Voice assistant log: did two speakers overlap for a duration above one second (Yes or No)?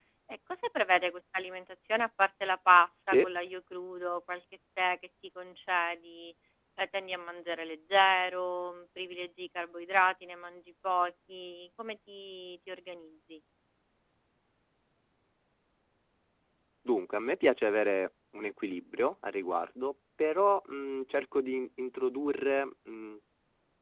No